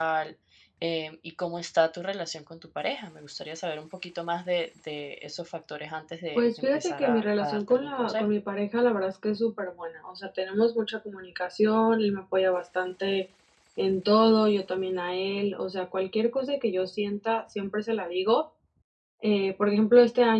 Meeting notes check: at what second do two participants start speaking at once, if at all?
6.3 s

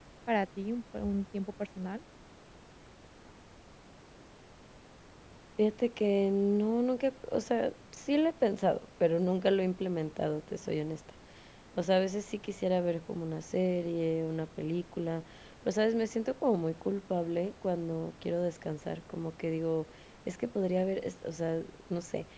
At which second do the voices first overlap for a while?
none

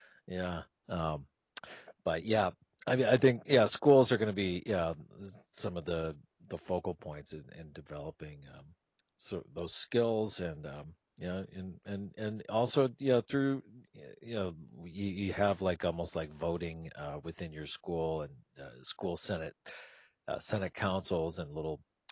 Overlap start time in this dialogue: none

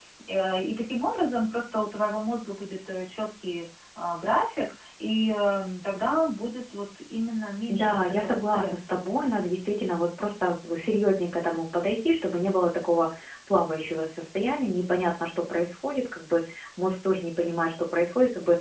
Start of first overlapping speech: 7.7 s

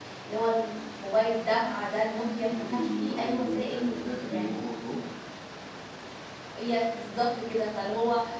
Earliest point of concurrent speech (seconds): 2.5 s

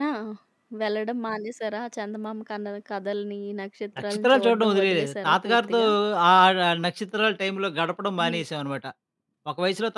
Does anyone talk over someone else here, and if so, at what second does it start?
4.1 s

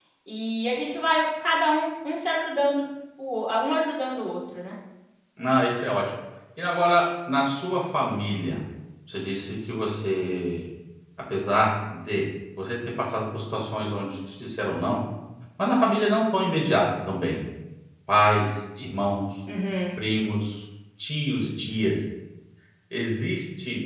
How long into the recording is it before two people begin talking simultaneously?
none

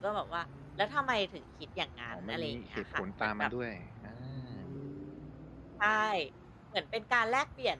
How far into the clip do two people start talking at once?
2.1 s

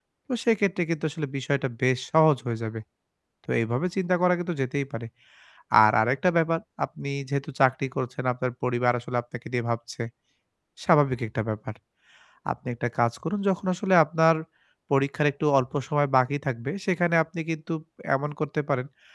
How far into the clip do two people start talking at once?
none

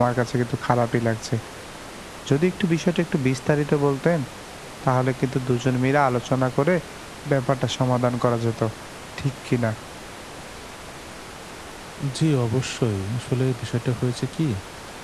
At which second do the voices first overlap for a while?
none

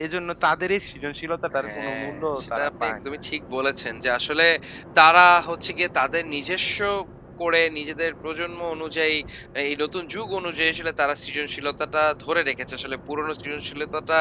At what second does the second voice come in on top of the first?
1.6 s

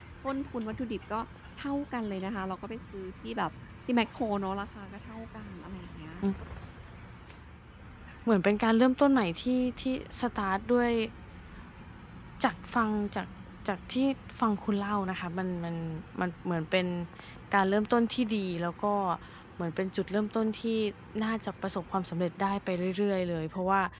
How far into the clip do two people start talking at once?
none

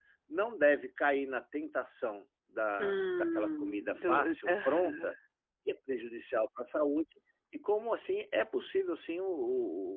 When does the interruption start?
2.8 s

